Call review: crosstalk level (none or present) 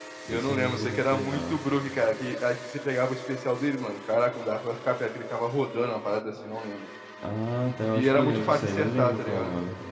present